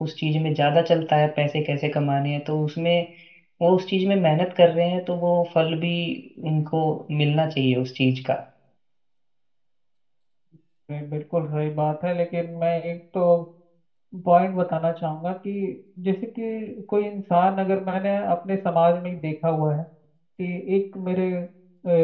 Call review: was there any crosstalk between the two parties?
No

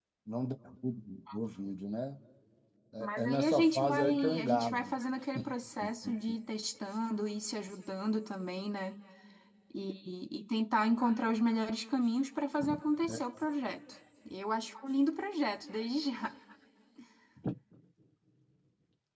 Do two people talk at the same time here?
Yes, from 3.0 s

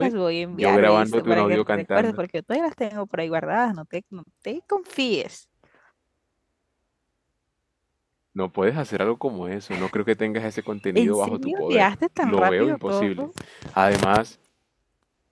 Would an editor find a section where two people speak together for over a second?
Yes, from 0.5 s

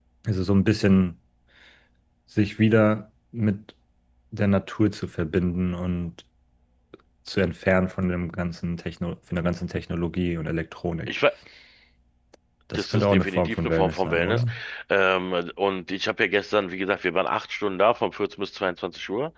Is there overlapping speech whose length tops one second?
Yes, from 12.7 s

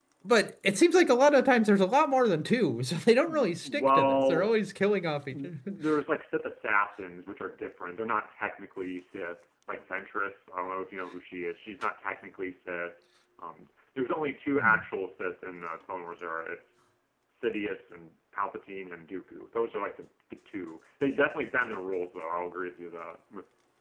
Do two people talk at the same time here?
Yes, from 3.2 s

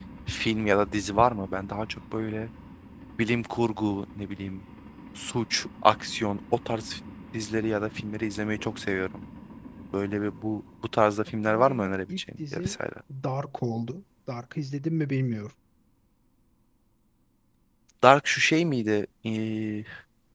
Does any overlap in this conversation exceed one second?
Yes, from 11.5 s

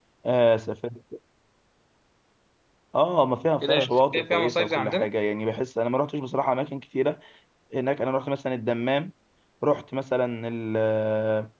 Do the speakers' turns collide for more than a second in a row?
Yes, from 3.6 s

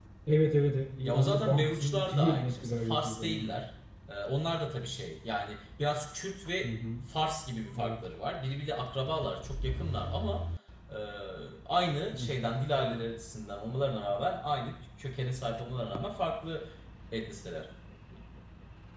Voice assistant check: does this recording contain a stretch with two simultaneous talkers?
Yes, from 1.0 s

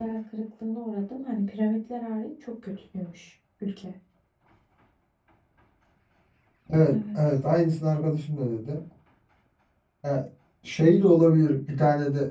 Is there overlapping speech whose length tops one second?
No

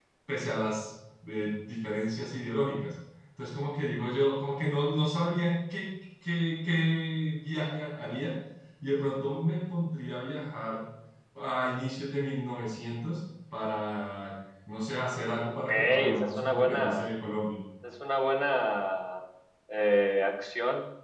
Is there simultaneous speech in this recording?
Yes, from 15.7 s

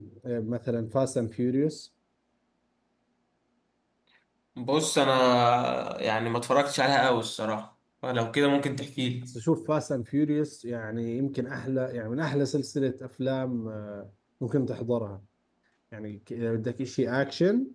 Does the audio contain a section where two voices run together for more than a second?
No

